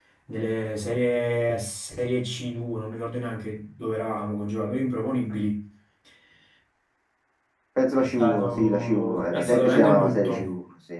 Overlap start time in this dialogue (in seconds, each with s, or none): 7.9 s